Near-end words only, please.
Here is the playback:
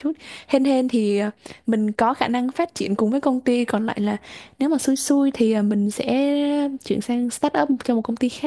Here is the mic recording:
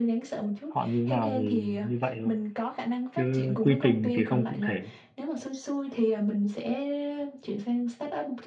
họ như thế nào thì như vậy thôi chứ quy trình thì không cụ thể

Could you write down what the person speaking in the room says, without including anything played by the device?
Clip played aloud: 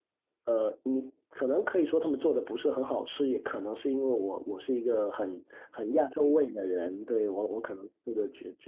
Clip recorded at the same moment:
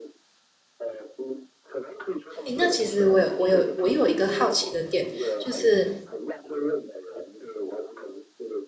诶，那其实我有我有我有一个好奇的点，就是

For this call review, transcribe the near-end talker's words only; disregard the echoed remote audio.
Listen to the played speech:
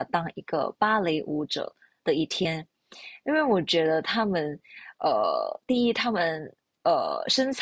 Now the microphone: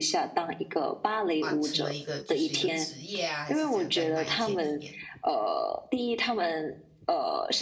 完成的一个就是一个职业啊，还是讲在那一天里面？

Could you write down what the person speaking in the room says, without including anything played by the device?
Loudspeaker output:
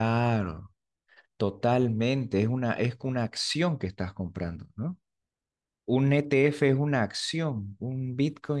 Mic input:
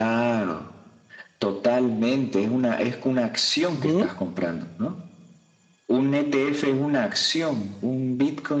ujú,

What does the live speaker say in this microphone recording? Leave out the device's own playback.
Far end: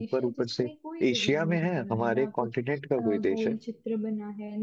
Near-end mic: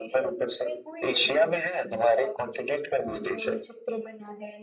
none

